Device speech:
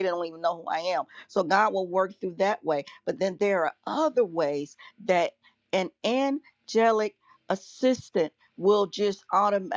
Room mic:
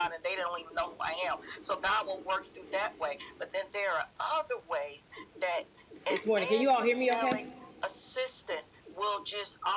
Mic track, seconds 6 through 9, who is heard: both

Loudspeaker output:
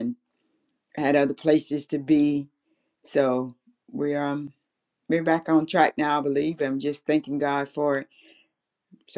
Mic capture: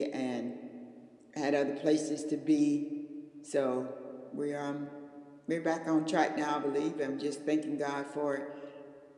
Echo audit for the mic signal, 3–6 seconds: echo only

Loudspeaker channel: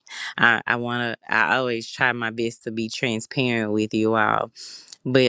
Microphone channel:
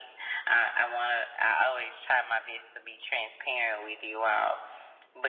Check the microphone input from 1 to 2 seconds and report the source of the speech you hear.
echo only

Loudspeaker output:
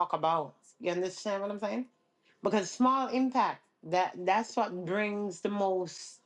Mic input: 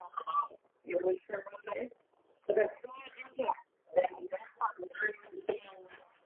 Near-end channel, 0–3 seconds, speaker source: echo only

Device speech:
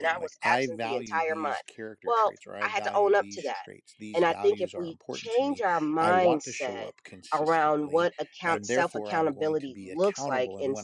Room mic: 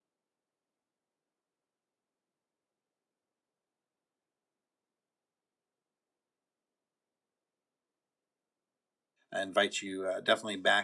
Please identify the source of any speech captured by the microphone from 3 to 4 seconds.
neither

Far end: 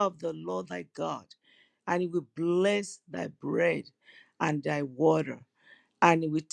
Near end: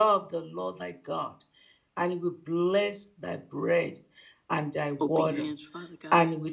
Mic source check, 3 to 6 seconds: both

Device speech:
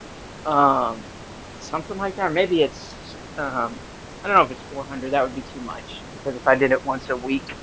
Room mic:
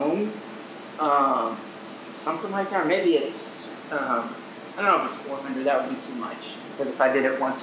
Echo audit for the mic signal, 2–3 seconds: echo only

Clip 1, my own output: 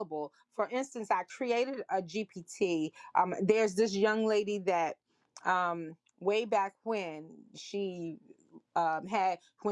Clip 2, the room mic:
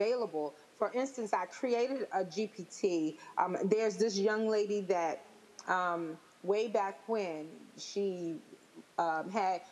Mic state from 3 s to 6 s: echo only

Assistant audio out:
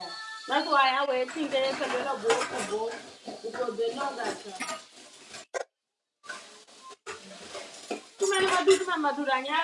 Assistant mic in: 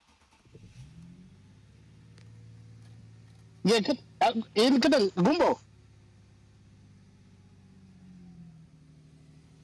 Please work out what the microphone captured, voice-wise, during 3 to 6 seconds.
user only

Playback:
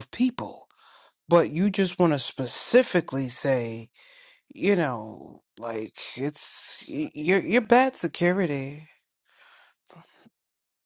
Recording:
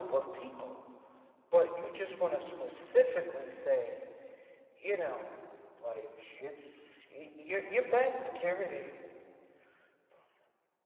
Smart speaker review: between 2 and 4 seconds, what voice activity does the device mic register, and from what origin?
echo only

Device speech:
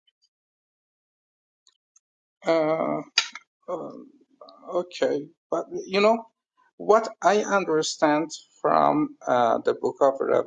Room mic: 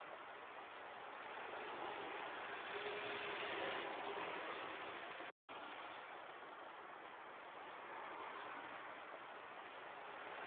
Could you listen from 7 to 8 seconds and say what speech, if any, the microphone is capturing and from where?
neither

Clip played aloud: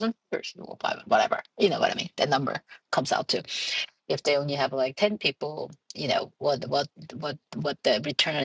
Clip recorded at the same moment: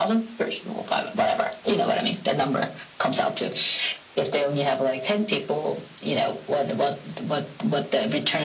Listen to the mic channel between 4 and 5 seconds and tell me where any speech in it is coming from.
echo only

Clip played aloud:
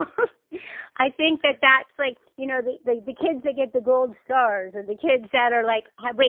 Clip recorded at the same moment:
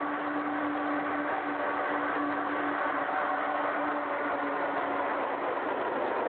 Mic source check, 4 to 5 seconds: neither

